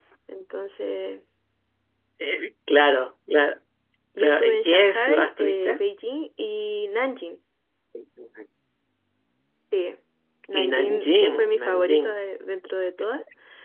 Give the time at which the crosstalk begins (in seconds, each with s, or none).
4.2 s